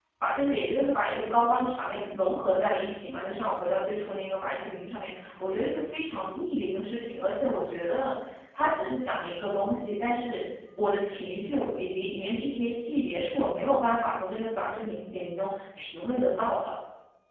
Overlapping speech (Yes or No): No